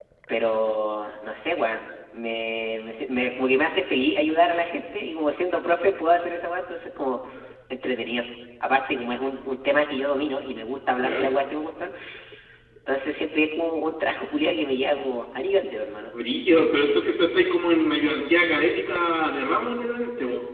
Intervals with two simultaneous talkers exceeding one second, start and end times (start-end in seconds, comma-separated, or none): none